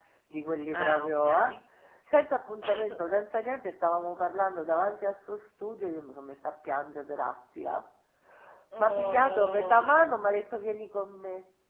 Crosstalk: present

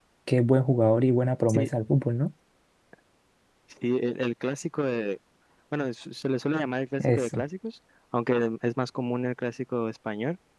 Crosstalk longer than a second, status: none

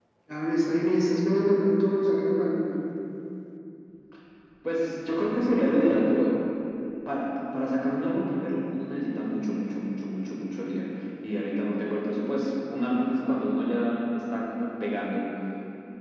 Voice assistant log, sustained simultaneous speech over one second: none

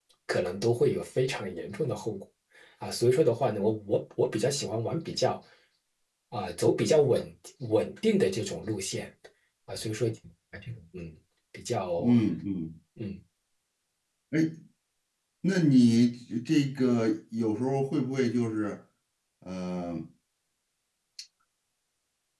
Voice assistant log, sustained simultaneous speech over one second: none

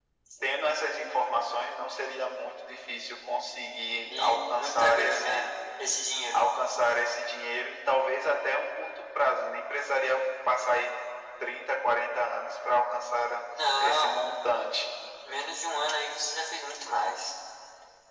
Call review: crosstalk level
present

